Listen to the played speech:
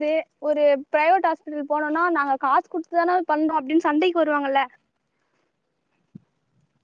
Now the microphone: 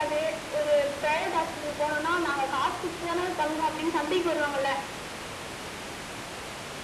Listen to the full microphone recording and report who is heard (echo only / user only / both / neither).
echo only